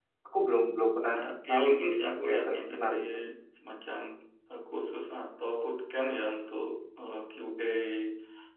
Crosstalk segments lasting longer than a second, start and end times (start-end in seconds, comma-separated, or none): 1.5-2.9